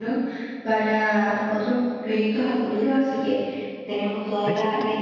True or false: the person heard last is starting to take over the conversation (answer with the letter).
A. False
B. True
A